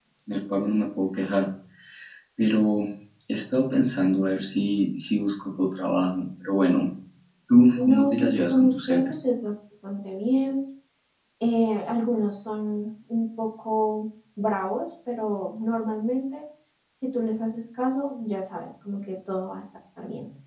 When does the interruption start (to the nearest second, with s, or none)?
8 s